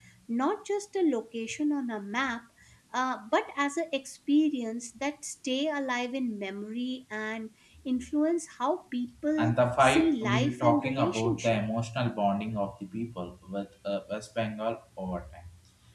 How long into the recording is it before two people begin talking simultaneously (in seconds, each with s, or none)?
9.4 s